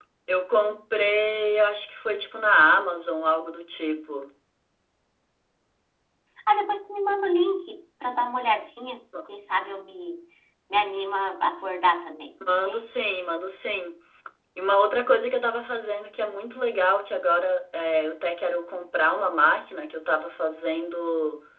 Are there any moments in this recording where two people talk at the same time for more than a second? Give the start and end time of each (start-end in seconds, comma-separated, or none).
none